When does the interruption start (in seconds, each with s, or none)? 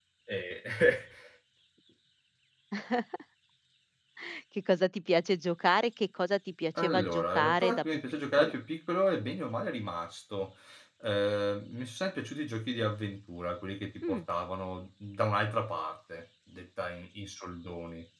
6.8 s